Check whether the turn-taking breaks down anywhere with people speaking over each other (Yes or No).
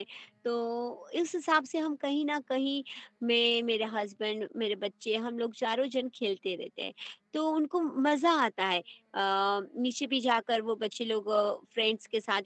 No